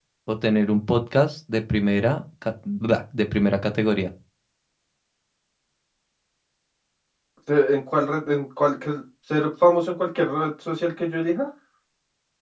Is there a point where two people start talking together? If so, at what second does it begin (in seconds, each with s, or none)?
none